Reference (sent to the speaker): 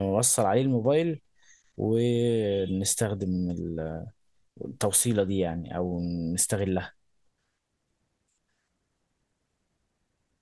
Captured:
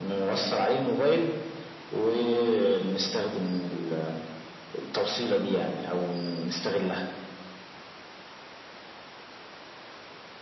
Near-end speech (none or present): none